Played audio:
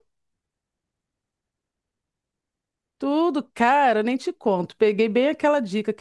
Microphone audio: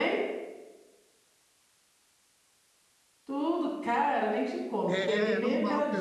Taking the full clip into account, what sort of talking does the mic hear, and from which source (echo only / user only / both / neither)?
both